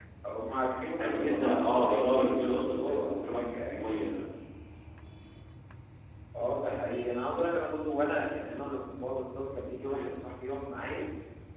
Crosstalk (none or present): present